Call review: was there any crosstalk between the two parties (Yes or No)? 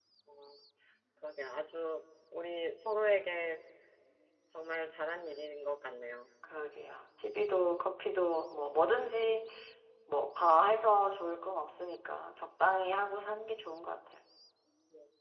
No